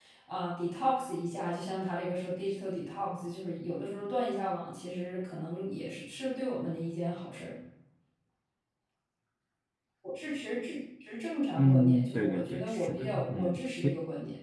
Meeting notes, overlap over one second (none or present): present